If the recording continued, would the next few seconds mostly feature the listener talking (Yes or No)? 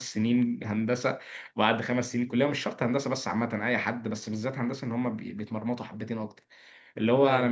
No